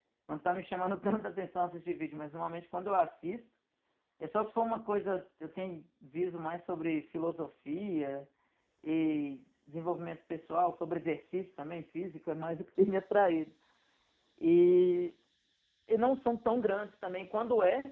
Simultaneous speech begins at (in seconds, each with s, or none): none